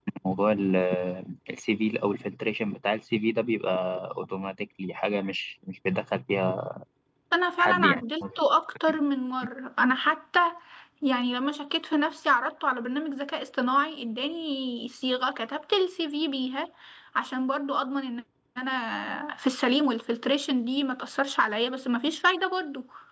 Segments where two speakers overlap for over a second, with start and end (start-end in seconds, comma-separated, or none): none